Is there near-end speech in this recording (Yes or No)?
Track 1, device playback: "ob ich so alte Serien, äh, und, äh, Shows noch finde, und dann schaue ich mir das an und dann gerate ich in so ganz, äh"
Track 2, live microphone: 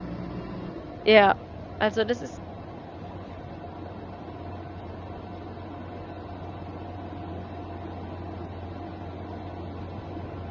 Yes